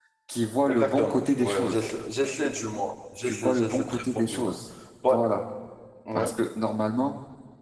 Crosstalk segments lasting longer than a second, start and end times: 0.7-1.9, 3.2-4.5

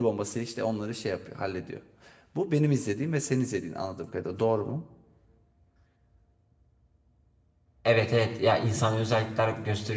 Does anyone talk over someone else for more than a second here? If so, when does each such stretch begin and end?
none

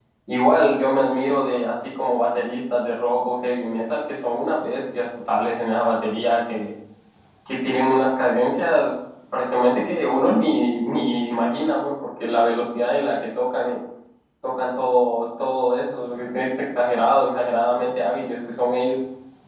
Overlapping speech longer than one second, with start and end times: none

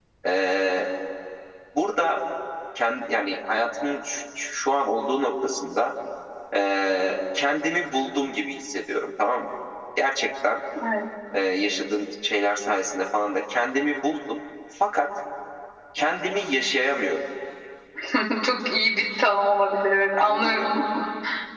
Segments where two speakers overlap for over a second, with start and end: none

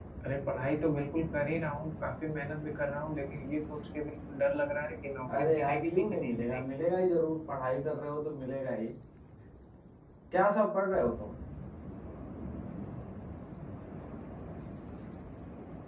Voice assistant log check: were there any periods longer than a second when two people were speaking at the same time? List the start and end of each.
5.3-6.6

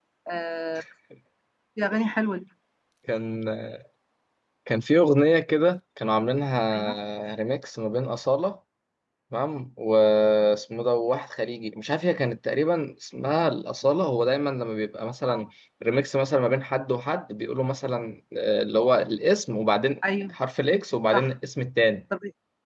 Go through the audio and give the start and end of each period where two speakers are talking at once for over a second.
none

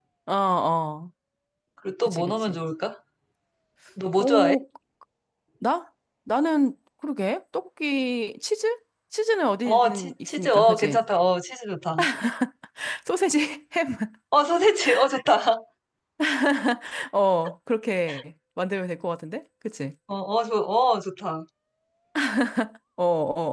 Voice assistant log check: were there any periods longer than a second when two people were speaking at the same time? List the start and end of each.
9.6-11.0

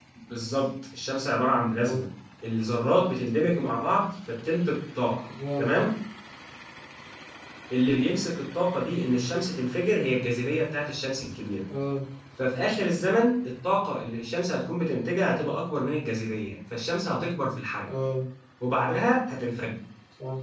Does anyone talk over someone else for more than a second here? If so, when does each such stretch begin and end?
none

